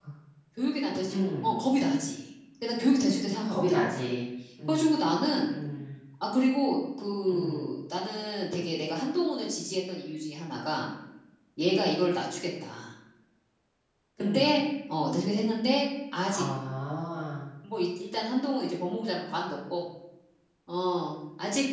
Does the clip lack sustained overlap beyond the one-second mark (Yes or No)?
Yes